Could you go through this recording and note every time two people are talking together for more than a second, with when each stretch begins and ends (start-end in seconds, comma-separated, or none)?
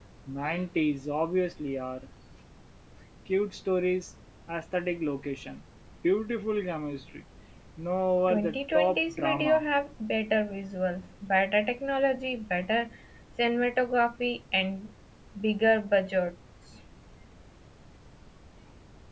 8.3-9.6